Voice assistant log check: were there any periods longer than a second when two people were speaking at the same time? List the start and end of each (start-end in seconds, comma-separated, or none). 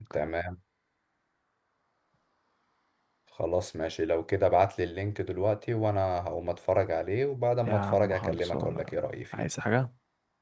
7.7-8.9